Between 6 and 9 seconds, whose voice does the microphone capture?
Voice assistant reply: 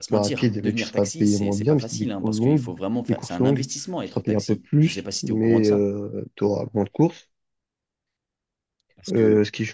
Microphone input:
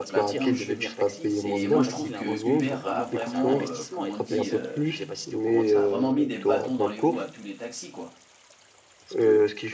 both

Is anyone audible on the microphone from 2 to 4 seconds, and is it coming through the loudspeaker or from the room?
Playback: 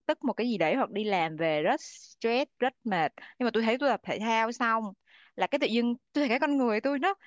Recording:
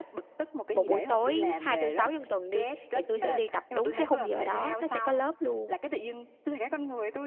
both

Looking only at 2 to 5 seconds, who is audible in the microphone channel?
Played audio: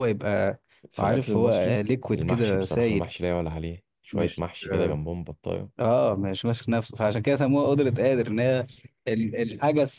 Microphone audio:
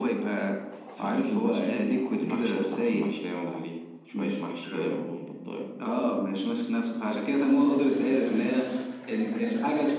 echo only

